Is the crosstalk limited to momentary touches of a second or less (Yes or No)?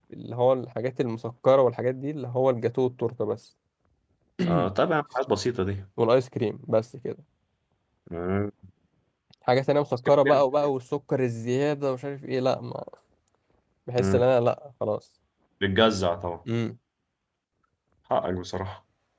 Yes